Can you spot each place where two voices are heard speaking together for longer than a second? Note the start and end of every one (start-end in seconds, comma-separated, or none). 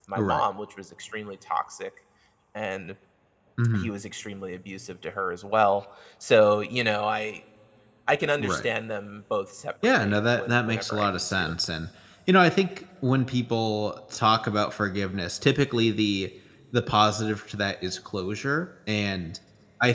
10.0-11.5